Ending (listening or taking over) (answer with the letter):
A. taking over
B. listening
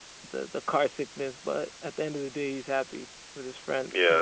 A